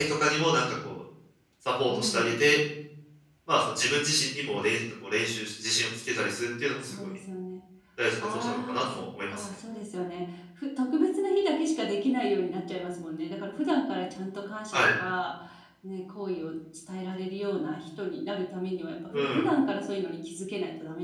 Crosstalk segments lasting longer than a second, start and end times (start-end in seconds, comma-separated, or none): 8.2-9.4